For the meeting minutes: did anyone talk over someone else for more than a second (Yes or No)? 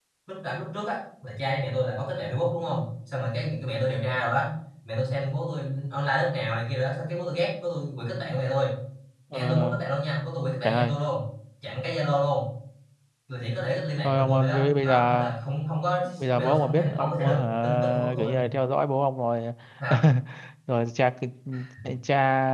Yes